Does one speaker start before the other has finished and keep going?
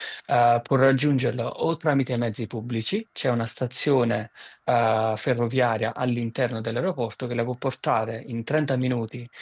No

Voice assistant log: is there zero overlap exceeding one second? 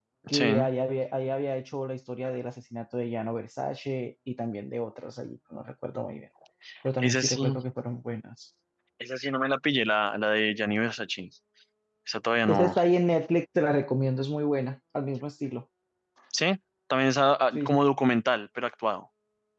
Yes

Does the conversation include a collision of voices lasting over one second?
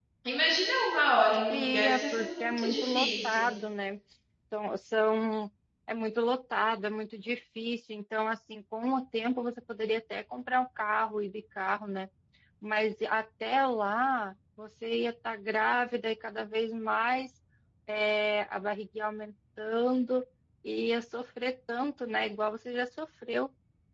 Yes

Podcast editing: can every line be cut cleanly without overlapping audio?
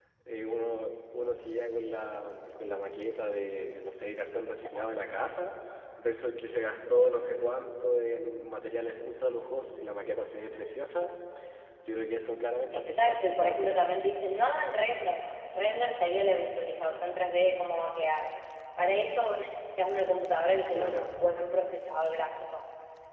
No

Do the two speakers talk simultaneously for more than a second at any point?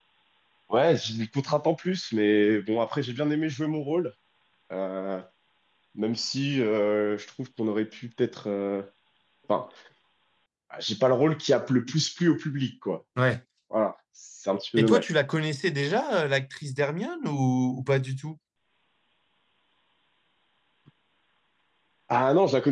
No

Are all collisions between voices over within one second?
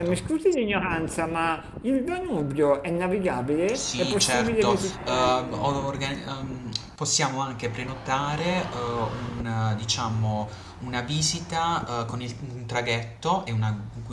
No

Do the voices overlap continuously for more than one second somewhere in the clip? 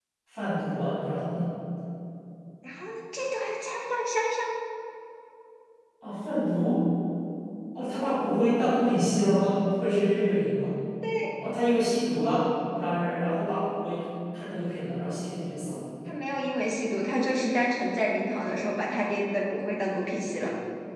No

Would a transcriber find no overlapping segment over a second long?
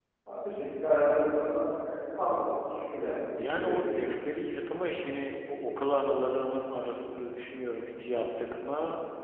Yes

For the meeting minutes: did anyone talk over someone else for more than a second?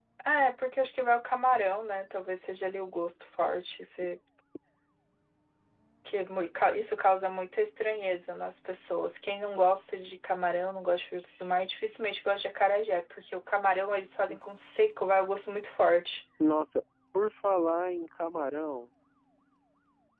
No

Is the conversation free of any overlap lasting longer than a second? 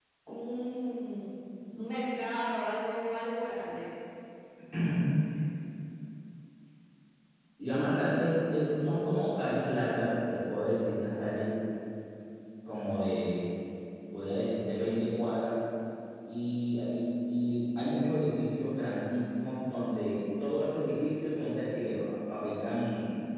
Yes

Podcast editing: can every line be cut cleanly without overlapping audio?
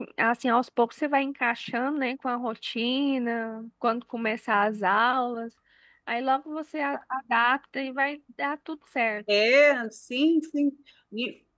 Yes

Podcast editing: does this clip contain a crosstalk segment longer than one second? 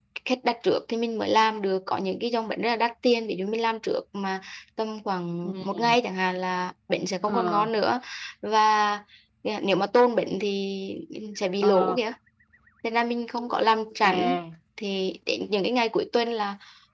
No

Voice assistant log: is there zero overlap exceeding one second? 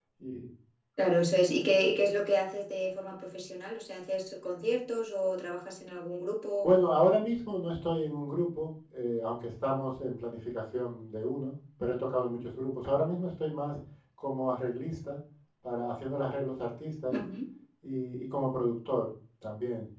Yes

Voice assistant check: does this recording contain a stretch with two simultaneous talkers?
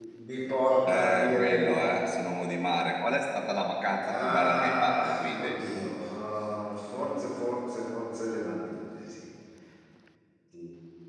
Yes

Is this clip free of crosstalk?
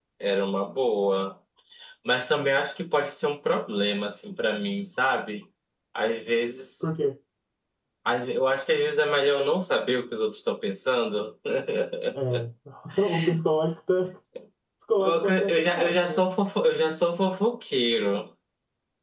No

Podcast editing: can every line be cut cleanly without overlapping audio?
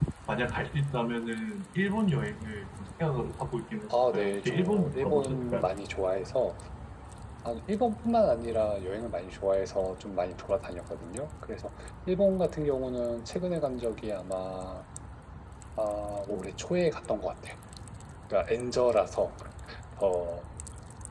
No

